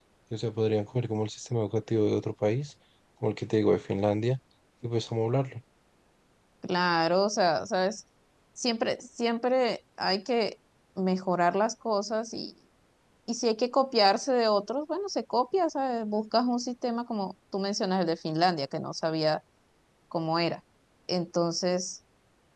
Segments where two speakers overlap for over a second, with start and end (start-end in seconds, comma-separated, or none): none